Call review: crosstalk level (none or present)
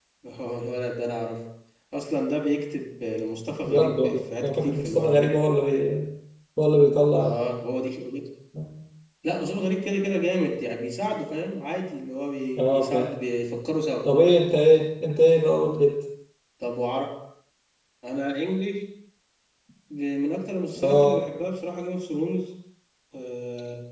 present